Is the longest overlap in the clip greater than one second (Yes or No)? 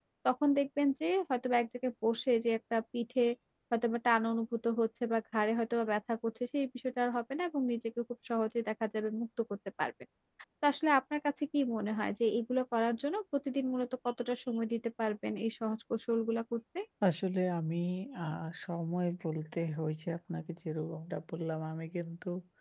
No